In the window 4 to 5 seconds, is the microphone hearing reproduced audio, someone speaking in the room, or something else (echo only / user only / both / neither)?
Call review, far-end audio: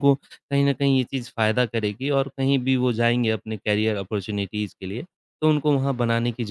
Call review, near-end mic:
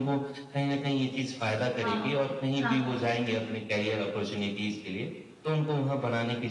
echo only